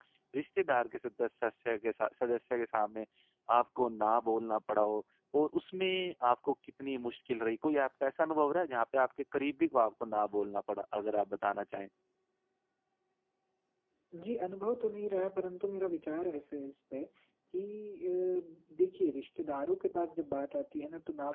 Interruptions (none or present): none